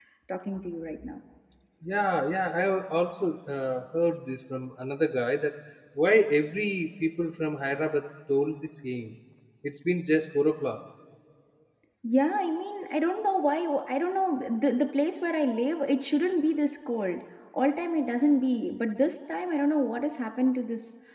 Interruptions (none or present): none